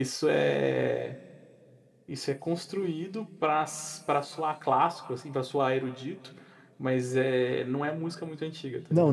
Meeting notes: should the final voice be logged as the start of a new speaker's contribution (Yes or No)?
Yes